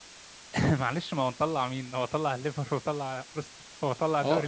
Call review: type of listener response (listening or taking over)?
taking over